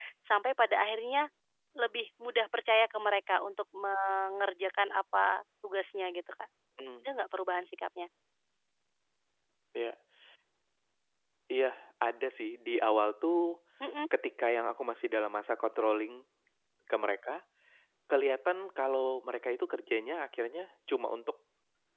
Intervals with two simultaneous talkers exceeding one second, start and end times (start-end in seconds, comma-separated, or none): none